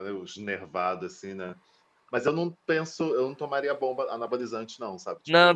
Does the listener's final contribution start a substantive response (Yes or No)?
Yes